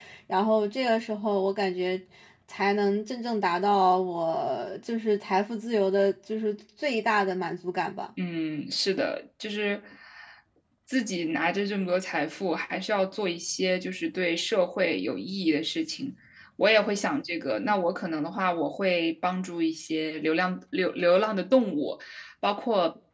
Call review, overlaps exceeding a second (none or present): none